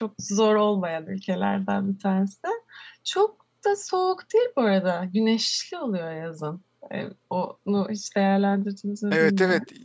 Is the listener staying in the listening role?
No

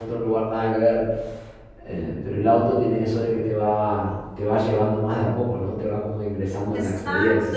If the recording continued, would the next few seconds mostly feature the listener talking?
Yes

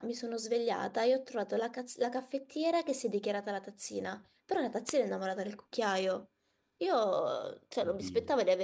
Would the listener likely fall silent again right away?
Yes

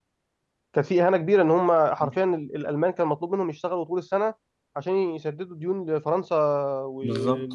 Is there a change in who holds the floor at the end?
Yes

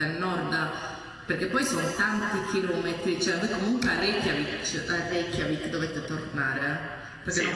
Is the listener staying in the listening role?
Yes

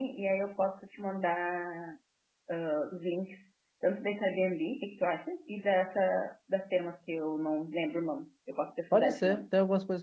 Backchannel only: No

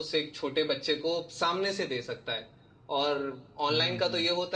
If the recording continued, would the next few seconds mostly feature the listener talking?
No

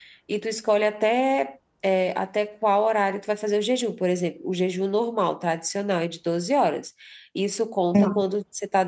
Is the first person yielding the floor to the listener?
No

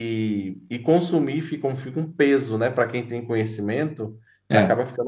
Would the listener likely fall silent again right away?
Yes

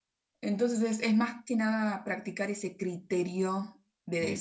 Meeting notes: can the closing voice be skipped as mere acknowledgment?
No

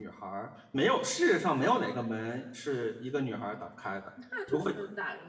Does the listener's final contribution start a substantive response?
Yes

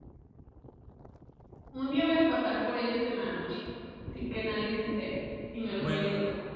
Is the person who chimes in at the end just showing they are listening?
No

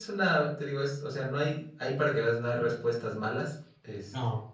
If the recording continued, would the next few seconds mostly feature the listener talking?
No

